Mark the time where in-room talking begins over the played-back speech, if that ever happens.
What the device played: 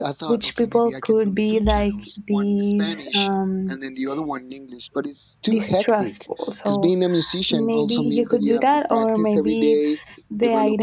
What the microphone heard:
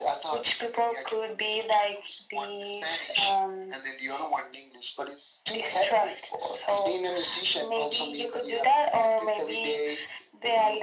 none

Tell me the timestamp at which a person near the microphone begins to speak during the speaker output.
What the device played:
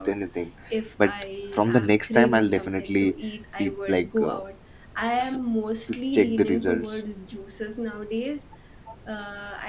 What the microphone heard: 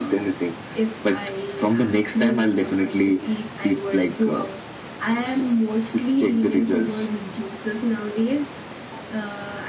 none

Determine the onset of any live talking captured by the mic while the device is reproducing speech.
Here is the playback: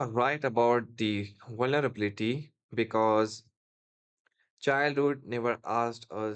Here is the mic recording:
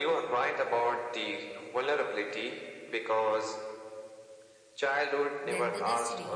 5.4 s

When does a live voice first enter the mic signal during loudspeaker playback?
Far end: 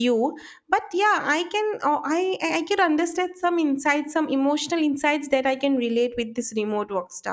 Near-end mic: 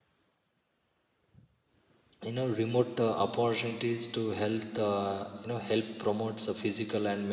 2.2 s

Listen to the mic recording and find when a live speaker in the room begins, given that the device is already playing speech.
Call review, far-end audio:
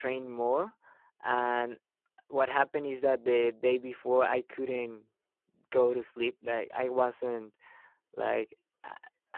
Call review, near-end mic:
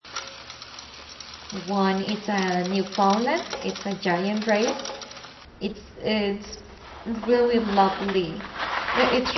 1.5 s

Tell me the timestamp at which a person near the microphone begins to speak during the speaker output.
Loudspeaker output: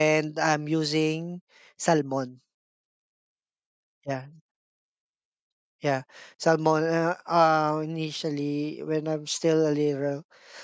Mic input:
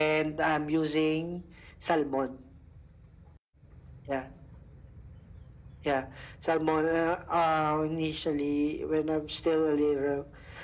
none

